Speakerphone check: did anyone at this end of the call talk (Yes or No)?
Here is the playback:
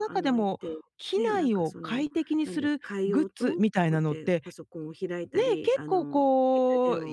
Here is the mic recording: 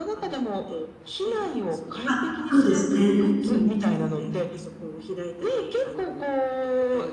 Yes